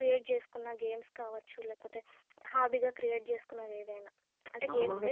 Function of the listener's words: taking over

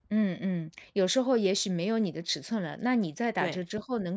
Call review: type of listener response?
listening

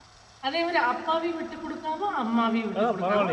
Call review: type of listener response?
taking over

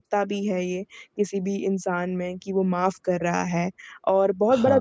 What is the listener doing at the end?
listening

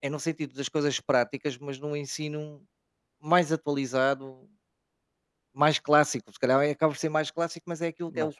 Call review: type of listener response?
listening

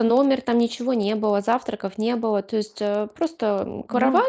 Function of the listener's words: listening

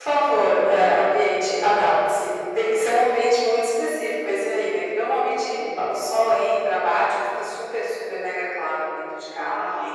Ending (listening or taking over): taking over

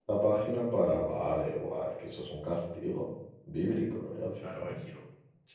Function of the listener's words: taking over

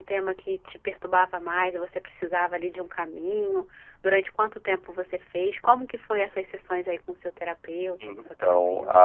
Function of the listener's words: taking over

